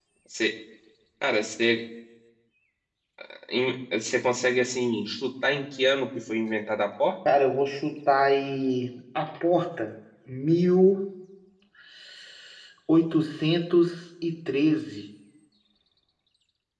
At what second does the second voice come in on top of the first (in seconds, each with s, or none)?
none